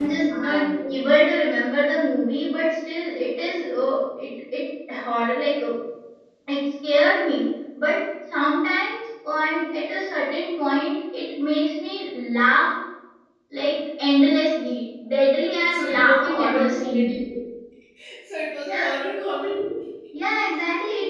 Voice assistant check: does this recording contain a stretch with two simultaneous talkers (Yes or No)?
Yes